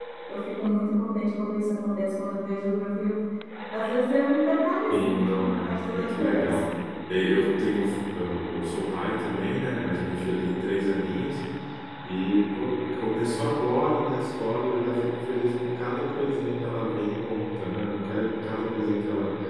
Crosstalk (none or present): present